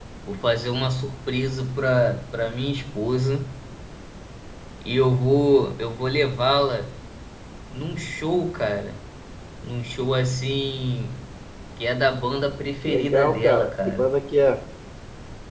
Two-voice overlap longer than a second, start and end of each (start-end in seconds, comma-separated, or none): 12.8-14.1